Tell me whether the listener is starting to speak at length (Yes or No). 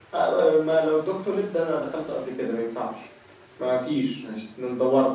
No